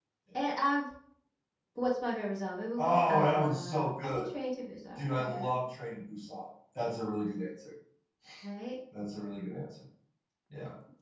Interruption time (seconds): 2.8 s

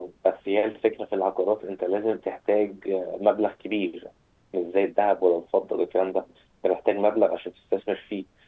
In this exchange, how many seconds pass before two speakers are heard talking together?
none

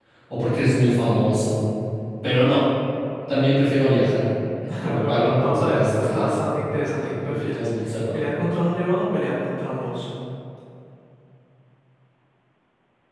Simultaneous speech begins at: 5.0 s

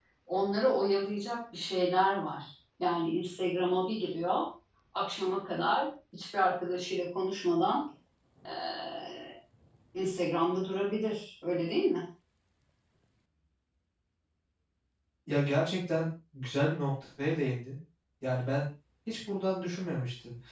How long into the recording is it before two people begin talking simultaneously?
none

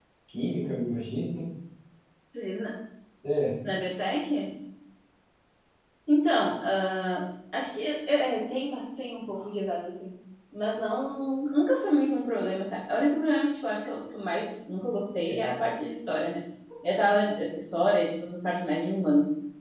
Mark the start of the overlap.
none

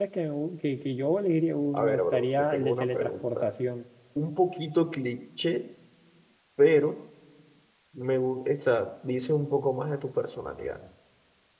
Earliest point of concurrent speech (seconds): 1.7 s

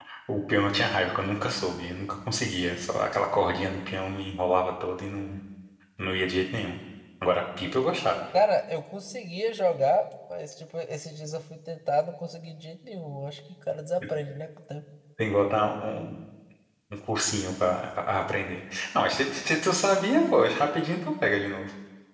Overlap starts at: none

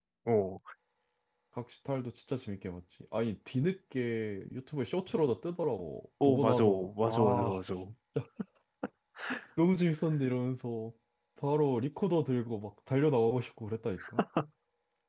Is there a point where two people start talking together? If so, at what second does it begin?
6.2 s

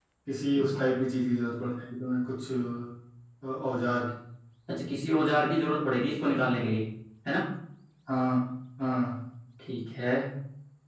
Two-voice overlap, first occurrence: none

